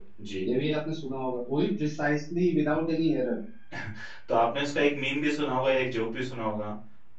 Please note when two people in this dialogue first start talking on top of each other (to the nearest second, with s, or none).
none